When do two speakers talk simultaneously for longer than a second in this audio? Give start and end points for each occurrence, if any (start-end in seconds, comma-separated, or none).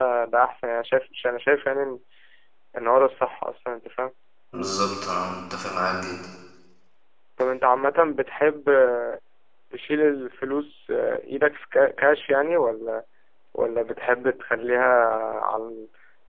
none